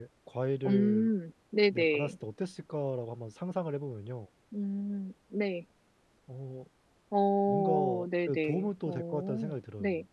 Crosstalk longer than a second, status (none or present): present